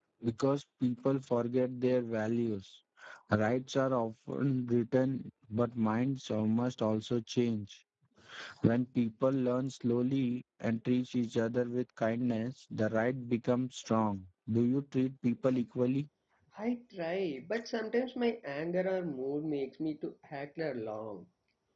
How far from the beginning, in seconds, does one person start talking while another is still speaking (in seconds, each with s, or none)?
none